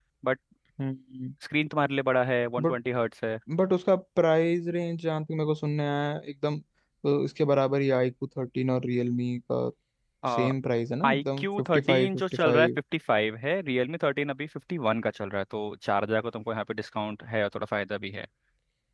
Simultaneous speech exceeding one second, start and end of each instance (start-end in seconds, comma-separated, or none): 11.0-12.7